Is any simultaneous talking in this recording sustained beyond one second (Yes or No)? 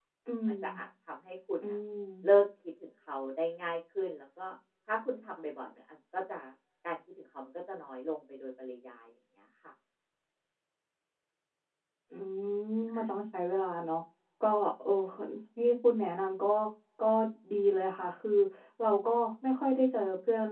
No